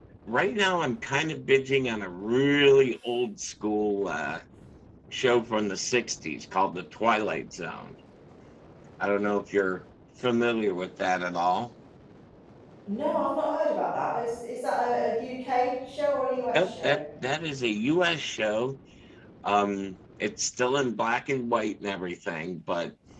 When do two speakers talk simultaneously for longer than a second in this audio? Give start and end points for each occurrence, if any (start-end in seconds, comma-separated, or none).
none